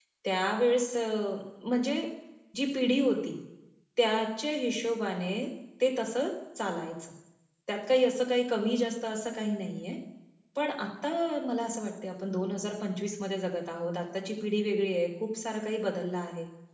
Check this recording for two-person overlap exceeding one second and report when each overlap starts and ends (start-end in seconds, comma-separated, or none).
none